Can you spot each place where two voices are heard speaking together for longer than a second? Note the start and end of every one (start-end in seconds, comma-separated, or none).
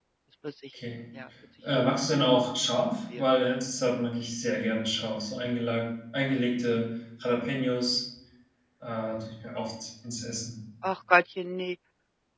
none